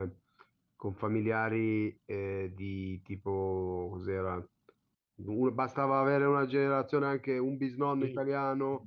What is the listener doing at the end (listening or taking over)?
taking over